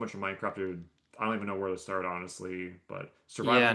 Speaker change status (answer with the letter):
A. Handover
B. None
A